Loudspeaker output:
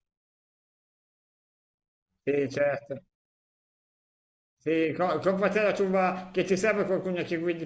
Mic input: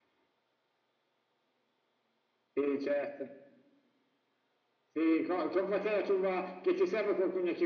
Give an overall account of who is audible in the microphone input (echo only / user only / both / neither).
echo only